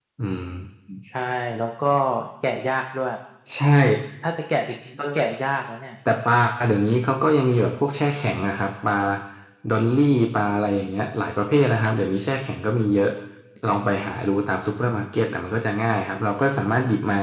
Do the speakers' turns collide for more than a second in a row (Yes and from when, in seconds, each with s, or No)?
No